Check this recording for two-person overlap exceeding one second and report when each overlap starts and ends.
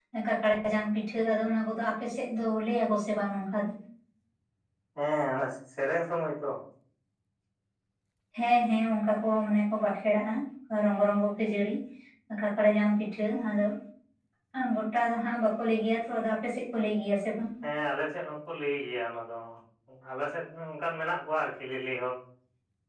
none

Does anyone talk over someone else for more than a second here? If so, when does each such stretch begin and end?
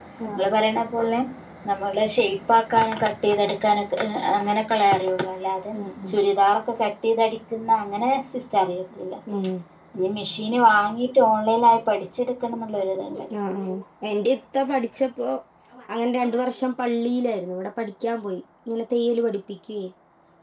none

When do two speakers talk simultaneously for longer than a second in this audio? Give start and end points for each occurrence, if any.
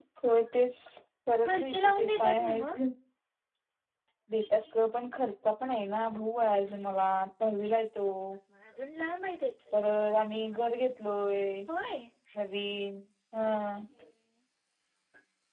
1.4-2.8

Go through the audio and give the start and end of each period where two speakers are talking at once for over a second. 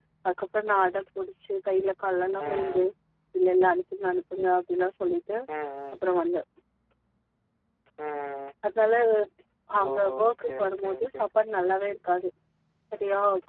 9.8-11.2

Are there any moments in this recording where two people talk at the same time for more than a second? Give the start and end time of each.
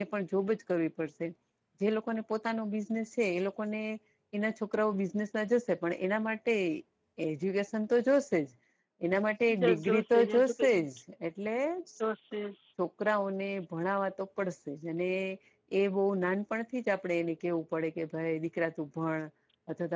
9.5-10.8

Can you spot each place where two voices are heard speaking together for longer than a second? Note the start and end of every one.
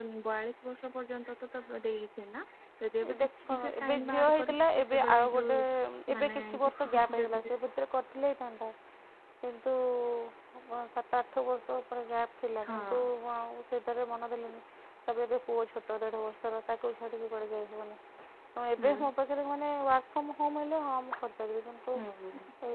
3.1-5.5, 6.2-7.4

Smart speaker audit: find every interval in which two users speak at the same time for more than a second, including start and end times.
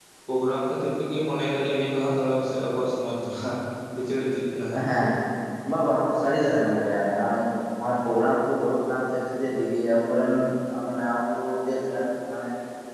none

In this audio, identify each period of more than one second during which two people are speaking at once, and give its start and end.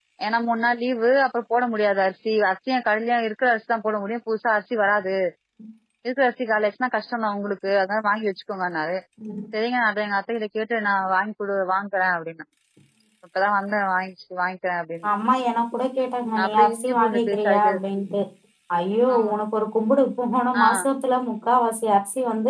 16.4-17.8

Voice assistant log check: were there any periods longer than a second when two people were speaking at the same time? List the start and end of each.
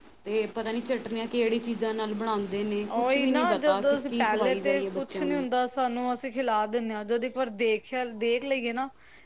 3.0-5.5

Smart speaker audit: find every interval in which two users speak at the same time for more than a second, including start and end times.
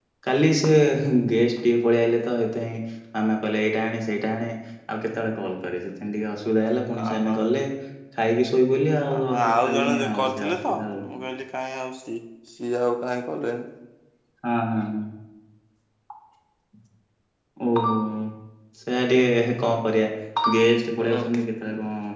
9.1-10.7

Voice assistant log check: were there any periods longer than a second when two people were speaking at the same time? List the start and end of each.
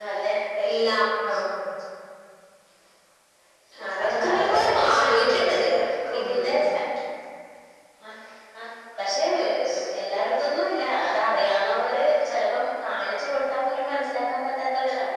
4.0-5.5

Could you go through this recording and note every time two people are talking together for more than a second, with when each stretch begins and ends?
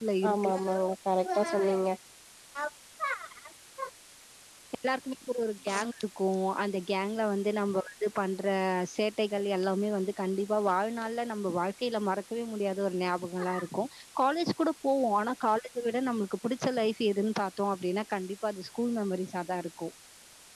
none

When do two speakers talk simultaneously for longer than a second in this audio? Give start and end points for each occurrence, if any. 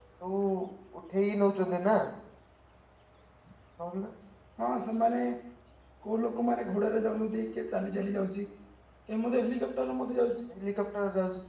none

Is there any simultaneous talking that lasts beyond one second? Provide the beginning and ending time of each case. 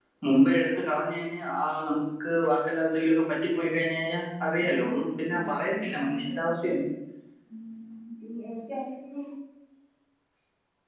4.6-6.7

